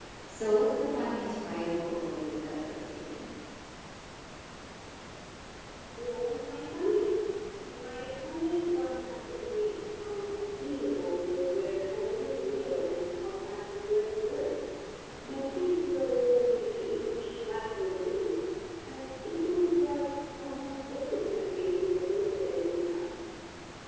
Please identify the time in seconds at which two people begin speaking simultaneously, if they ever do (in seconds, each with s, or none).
none